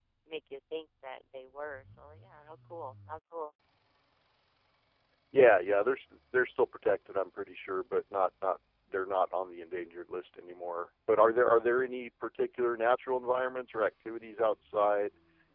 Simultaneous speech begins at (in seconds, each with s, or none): none